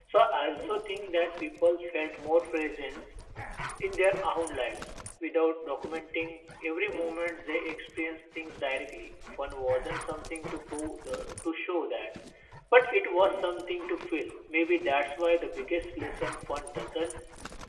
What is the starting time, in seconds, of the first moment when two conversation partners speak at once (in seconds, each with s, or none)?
none